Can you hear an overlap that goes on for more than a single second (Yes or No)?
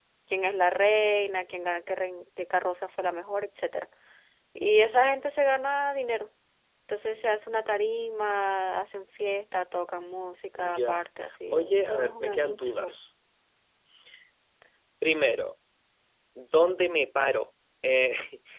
Yes